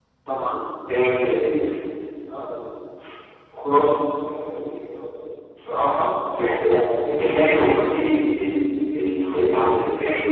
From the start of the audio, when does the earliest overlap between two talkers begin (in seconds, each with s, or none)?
none